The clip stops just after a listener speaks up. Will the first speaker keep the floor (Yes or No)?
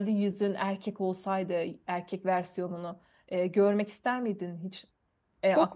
No